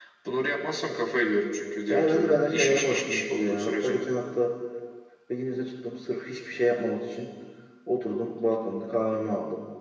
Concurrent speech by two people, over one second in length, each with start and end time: 1.9-4.0

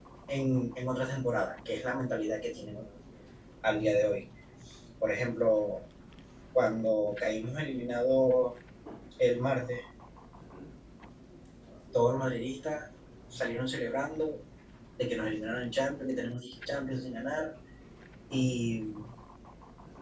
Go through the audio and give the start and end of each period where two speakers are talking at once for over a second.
none

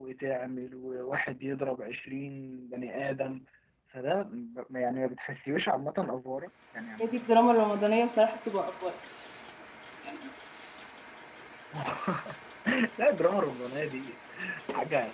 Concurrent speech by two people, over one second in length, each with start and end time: none

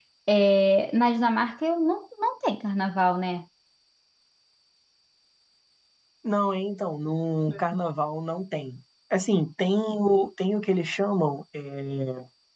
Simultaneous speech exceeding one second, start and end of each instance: none

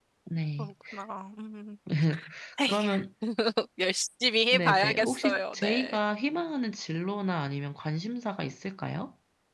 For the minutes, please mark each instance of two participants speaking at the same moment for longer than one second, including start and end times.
4.5-6.0

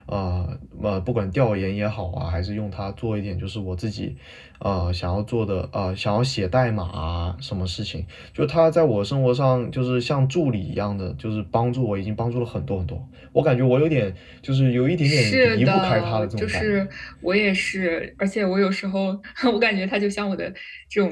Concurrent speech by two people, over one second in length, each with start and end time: 15.0-16.8

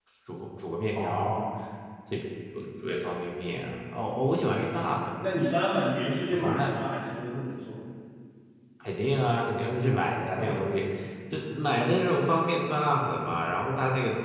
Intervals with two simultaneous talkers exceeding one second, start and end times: none

